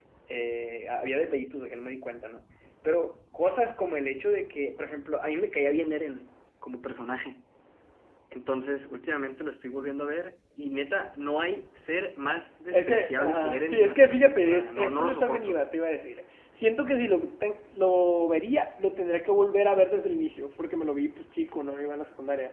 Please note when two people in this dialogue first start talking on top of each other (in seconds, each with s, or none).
12.7 s